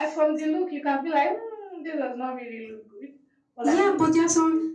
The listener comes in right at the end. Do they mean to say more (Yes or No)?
Yes